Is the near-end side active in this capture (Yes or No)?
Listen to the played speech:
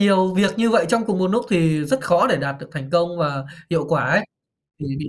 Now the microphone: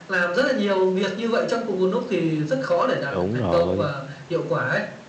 Yes